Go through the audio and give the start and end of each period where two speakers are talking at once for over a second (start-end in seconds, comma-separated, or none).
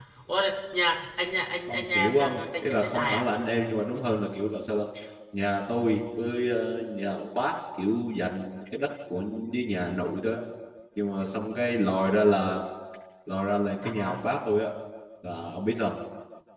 1.7-3.3